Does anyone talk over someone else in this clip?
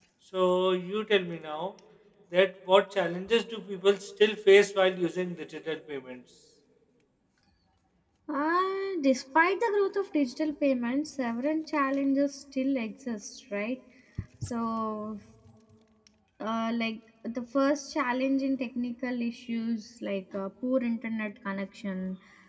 No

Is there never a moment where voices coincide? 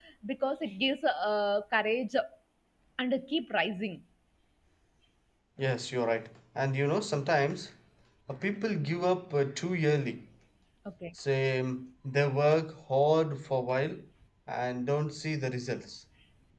Yes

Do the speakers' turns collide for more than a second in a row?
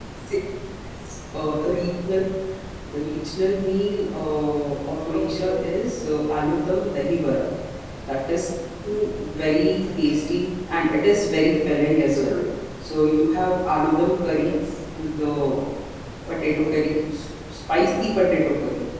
No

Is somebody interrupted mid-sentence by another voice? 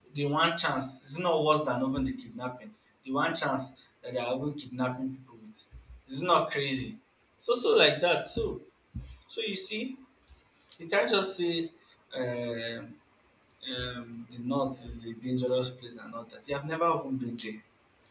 No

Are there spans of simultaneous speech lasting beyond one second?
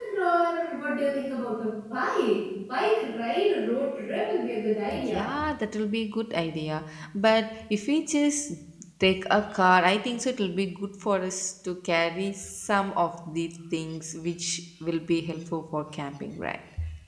No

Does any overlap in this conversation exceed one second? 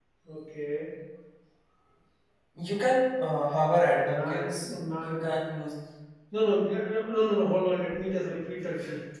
Yes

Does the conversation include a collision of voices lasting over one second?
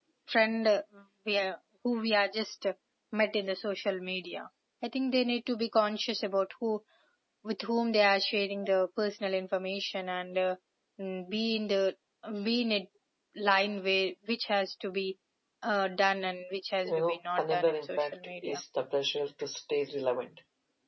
Yes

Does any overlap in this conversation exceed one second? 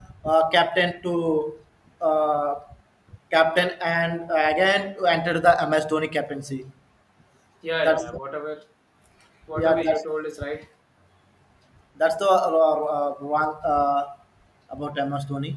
No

